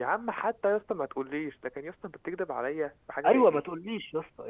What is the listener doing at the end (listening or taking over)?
taking over